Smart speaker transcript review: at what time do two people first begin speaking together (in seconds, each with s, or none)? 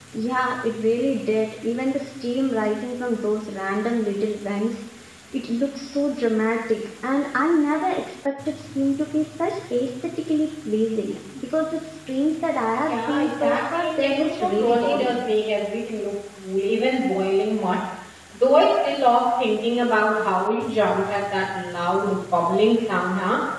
12.9 s